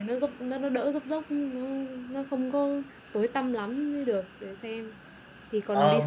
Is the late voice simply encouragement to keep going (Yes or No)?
No